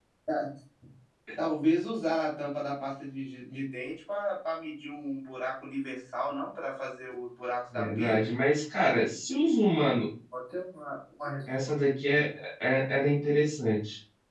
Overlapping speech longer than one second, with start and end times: none

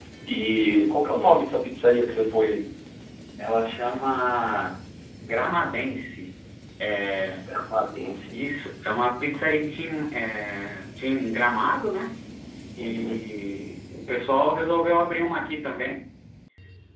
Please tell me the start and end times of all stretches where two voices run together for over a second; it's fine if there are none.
none

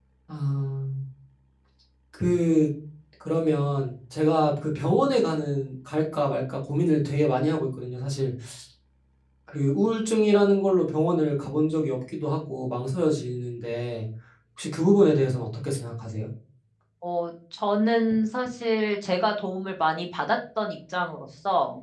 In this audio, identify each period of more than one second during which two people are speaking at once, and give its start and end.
none

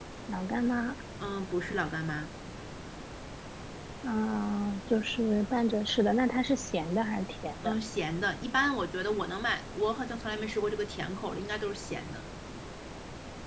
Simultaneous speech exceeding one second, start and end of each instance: none

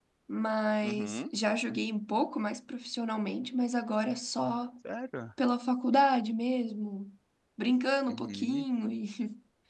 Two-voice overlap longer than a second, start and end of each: none

